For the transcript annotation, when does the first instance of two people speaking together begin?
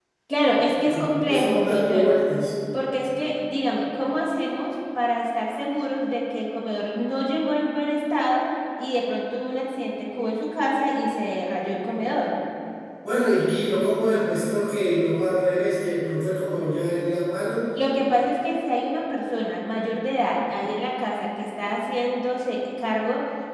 0.9 s

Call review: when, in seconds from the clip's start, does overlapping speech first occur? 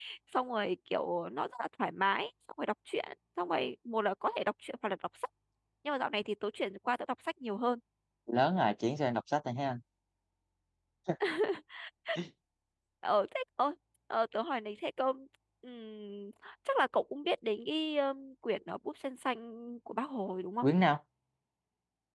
none

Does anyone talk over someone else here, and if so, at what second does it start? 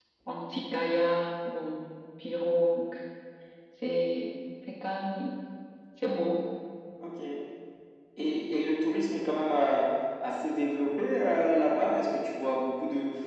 none

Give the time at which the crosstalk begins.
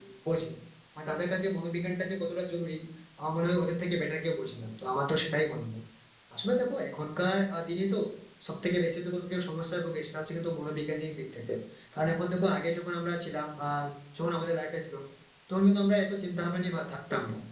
none

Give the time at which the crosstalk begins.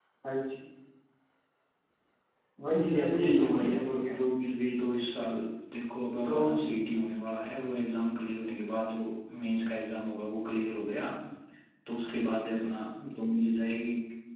2.7 s

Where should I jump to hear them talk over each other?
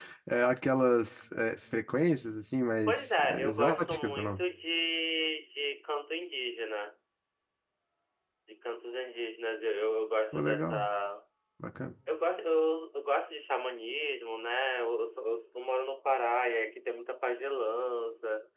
2.9 s

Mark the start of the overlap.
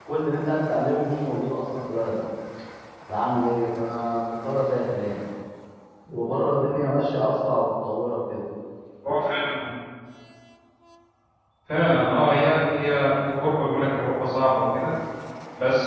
none

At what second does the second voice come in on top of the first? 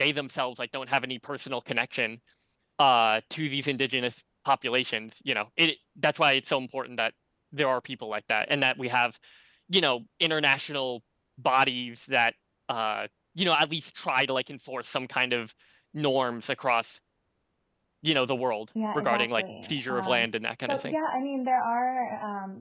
18.8 s

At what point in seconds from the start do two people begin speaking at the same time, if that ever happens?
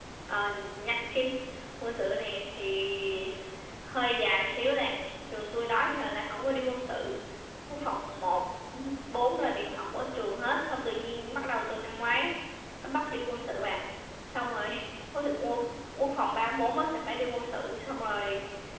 none

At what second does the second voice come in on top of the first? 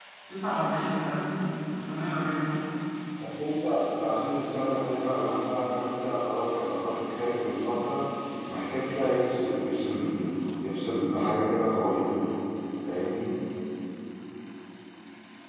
none

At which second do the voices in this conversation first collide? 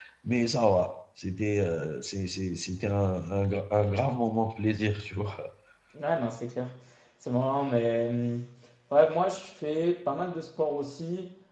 none

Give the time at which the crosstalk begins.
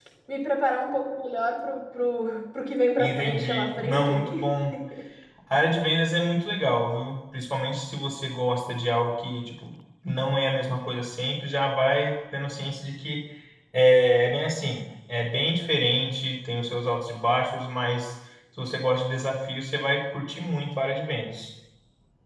3.0 s

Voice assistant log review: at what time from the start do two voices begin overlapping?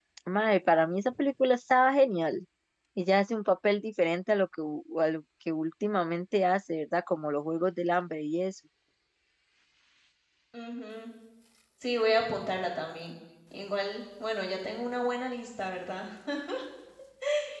none

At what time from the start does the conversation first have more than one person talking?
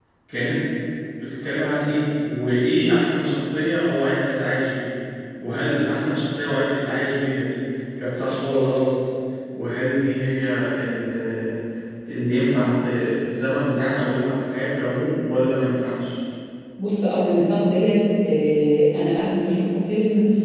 none

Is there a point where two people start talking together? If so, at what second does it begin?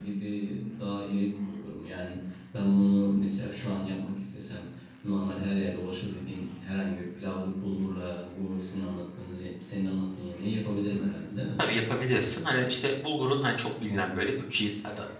none

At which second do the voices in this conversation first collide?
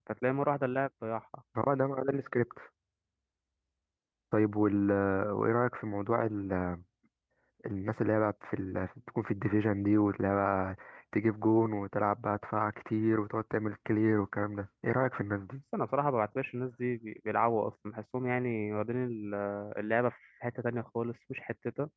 none

